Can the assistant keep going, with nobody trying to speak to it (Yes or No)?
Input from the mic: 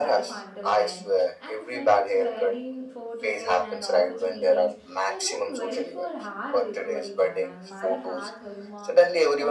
No